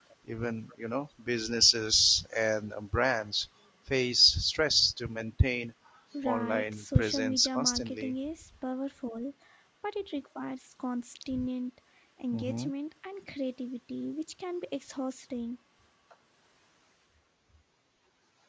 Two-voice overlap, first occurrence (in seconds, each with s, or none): 6.2 s